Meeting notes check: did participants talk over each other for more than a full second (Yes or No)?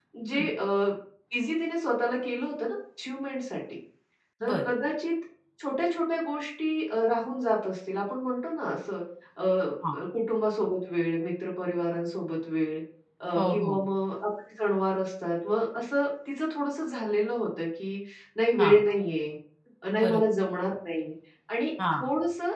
No